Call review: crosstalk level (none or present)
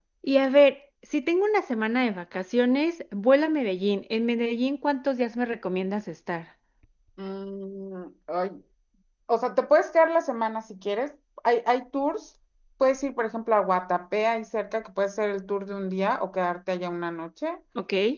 none